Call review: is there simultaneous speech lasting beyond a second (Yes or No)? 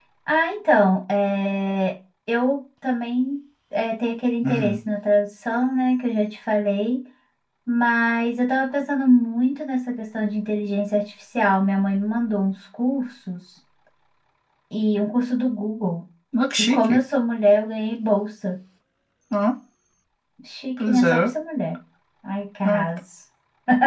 No